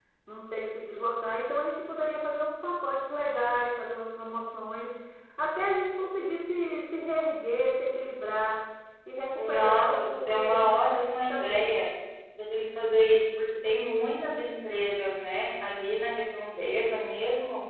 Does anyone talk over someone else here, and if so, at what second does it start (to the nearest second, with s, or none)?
9 s